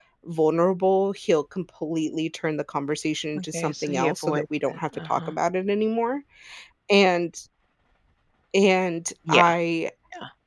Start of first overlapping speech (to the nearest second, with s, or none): 3 s